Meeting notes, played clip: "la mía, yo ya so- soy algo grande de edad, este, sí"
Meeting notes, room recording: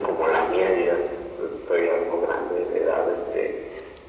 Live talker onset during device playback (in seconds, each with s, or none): none